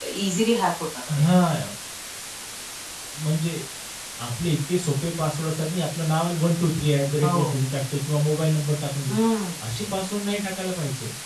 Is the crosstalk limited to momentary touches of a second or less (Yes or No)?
Yes